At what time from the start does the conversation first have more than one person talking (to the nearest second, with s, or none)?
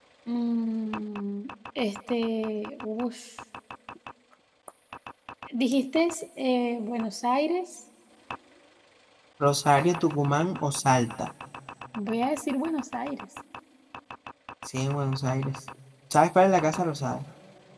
none